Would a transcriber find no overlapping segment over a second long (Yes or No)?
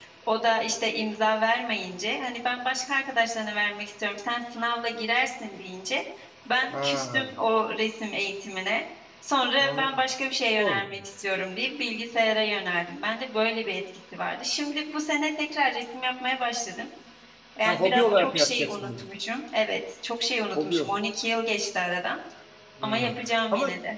No